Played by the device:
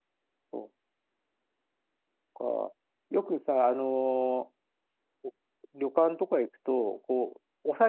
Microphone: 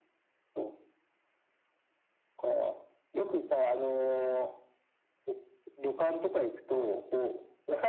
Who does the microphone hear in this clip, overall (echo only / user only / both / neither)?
echo only